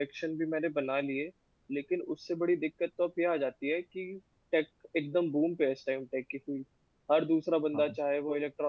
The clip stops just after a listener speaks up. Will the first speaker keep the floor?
Yes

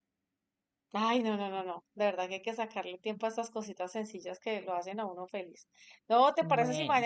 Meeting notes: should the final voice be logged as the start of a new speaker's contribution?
No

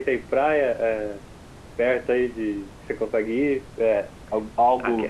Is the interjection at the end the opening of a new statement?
No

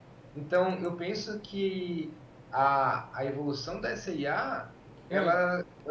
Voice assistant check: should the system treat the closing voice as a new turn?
No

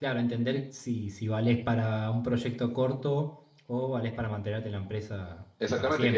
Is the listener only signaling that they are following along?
No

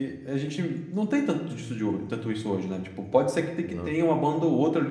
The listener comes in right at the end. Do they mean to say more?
No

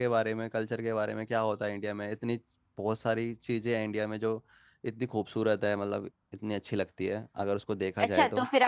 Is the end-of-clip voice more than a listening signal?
Yes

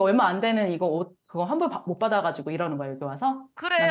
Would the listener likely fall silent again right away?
No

